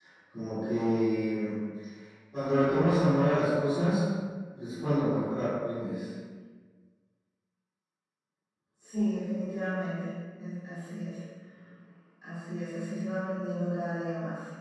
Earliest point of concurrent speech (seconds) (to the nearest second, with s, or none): none